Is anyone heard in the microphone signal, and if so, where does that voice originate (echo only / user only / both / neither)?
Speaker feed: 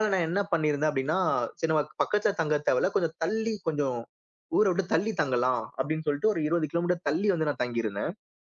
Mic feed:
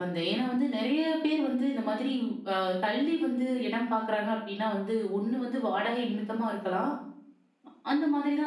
user only